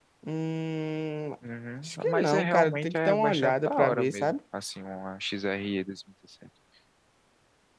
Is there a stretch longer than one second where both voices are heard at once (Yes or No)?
Yes